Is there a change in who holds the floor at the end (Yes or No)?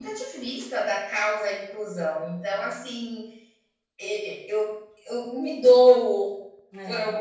No